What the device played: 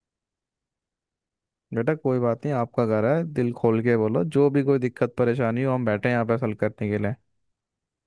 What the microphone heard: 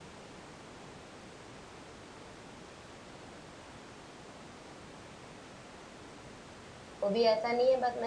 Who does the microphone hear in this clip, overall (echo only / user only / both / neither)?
user only